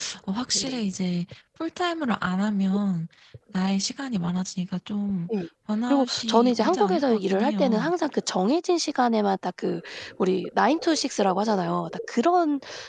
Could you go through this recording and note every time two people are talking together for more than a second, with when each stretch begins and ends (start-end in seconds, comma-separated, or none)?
5.9-7.9